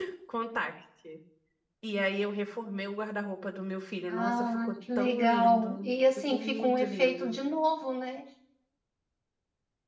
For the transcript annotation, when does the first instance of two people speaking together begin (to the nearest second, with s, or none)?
4 s